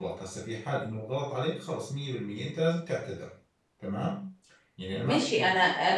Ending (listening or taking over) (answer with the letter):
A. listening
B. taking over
B